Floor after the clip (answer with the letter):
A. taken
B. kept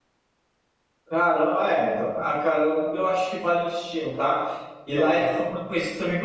B